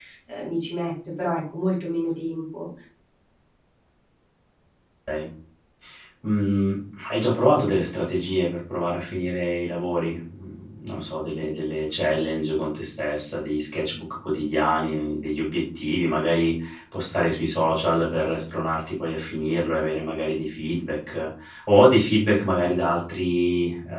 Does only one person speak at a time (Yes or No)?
Yes